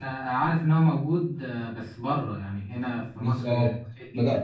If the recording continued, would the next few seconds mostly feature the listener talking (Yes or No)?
Yes